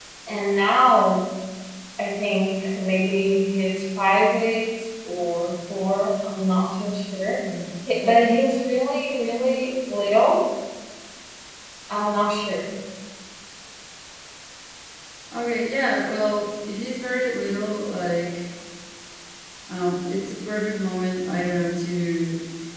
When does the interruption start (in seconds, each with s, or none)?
none